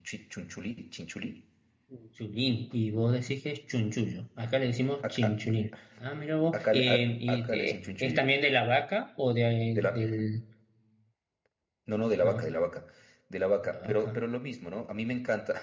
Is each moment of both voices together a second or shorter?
No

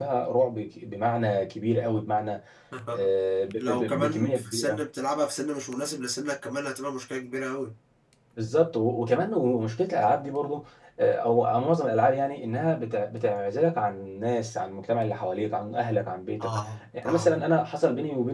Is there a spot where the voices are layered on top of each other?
Yes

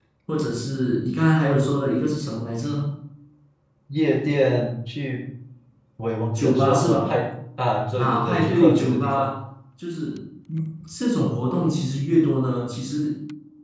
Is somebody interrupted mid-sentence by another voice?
Yes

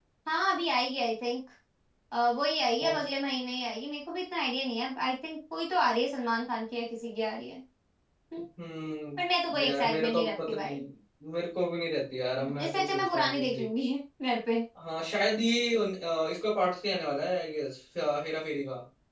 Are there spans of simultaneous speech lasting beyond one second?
Yes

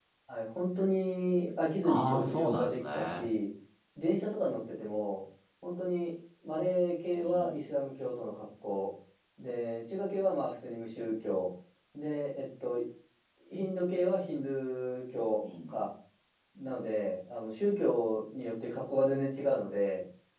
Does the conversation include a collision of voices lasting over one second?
Yes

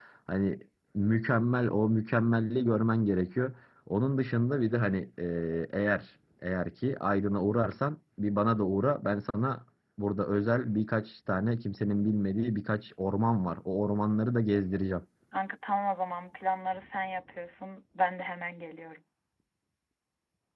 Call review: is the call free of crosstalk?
Yes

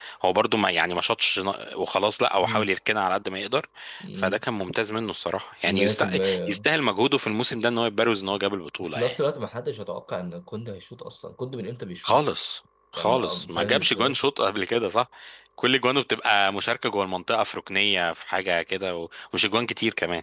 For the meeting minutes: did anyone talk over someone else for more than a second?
Yes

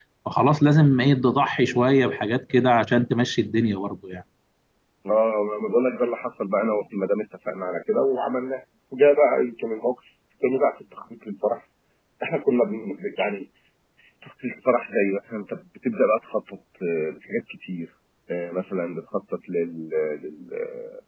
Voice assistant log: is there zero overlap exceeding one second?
Yes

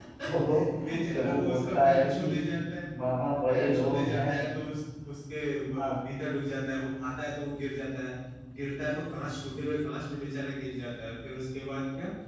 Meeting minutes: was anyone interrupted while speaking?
Yes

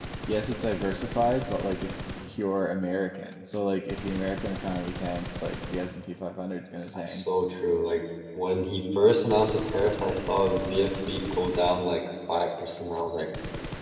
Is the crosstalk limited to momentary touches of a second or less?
Yes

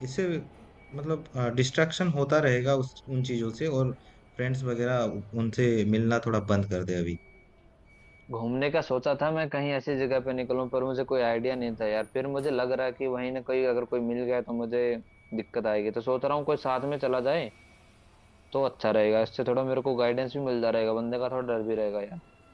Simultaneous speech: No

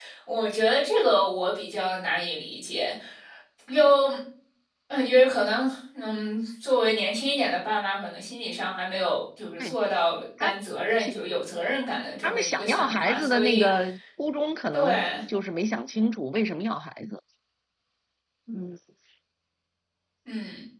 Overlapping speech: Yes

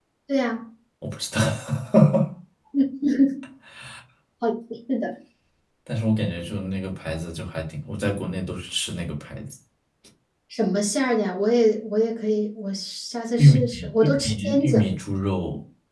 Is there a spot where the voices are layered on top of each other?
Yes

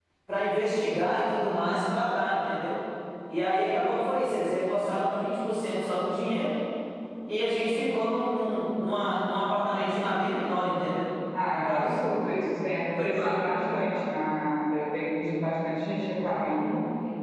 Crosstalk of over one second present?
No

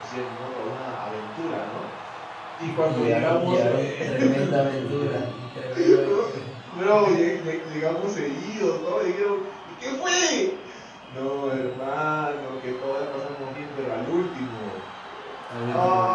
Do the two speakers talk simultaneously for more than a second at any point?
Yes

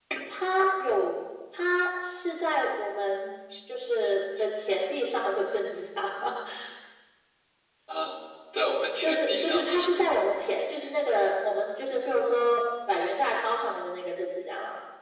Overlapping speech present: Yes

